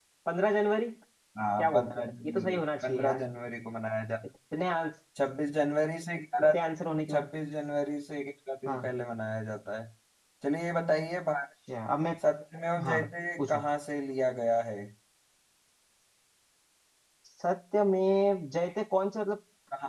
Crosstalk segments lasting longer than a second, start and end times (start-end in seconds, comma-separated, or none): 1.6-3.2